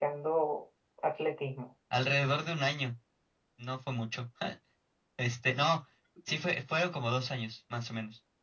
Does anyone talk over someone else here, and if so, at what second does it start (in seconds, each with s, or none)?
none